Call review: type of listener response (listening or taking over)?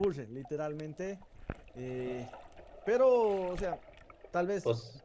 listening